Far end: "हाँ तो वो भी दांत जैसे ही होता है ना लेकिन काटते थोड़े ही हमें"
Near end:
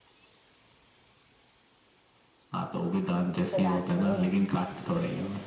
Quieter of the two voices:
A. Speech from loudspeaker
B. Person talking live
B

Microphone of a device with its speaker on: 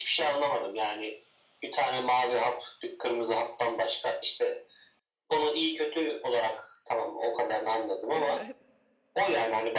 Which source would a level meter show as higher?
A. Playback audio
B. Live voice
A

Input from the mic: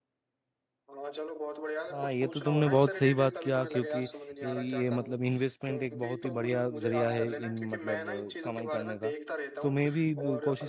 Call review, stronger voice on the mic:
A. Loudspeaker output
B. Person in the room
B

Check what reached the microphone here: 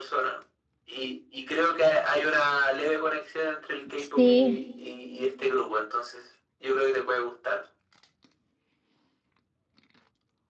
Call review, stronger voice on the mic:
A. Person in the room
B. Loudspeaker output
A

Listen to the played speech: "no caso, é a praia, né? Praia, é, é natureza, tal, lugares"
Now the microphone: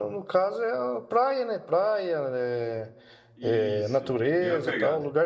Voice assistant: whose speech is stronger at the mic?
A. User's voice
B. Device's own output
B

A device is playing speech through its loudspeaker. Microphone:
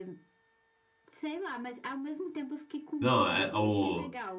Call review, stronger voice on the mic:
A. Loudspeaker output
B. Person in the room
B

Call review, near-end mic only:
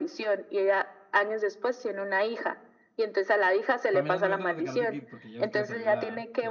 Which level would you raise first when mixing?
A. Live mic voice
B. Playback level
A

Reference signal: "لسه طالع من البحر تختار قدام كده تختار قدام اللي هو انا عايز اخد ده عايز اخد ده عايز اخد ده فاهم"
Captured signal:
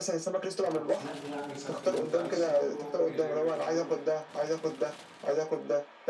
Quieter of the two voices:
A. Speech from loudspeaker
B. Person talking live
B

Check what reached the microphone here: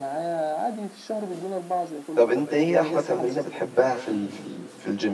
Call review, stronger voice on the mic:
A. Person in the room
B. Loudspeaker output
A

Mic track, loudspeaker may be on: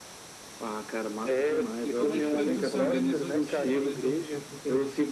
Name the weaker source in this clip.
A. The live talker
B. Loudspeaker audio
A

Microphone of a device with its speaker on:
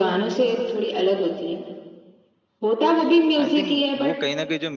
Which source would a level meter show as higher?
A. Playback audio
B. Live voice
A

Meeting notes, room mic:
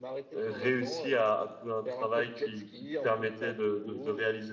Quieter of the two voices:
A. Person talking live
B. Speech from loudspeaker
B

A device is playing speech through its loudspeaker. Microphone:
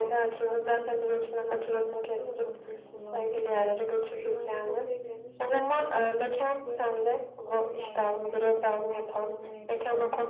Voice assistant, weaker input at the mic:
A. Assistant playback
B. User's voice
B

